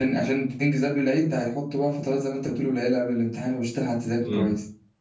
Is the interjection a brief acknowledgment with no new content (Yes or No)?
No